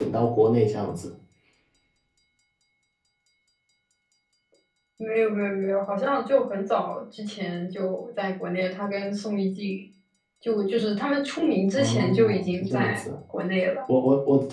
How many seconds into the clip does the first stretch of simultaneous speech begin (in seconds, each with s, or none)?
11.8 s